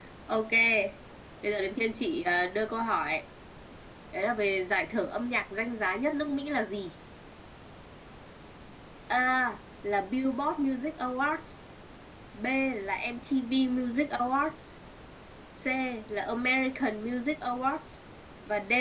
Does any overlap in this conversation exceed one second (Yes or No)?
No